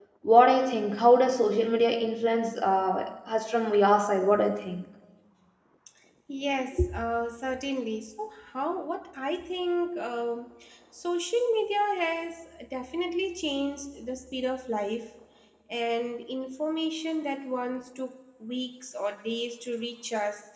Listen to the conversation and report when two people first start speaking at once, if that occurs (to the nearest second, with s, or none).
none